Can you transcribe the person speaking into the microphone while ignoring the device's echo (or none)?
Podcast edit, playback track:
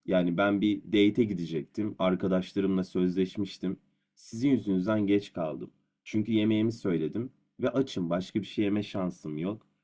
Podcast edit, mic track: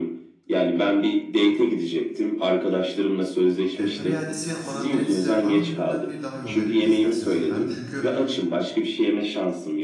e, para iadesi yapmadan direkt size aynı üründen bir daha yollayabiliriz isterseniz efendim. Çünkü